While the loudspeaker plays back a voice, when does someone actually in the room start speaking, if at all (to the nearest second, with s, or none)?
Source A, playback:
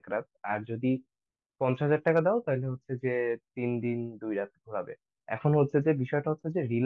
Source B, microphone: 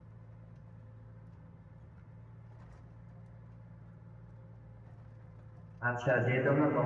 6 s